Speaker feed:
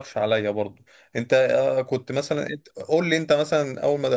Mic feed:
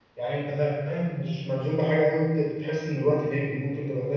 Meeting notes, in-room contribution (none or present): present